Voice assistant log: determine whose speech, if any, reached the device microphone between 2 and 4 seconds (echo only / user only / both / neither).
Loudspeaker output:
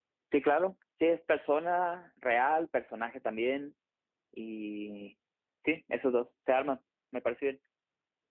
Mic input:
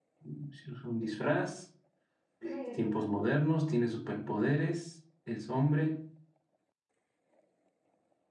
user only